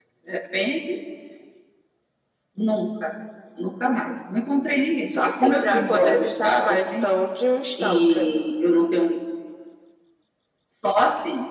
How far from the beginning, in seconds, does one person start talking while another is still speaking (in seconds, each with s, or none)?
5.1 s